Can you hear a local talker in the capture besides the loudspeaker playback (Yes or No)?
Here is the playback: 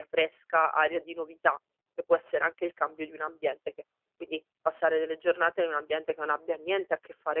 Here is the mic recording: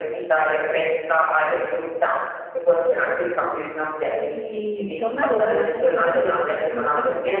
Yes